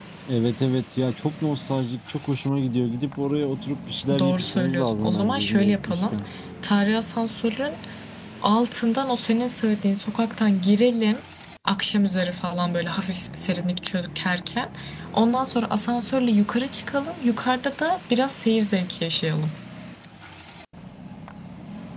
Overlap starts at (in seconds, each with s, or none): 4.1 s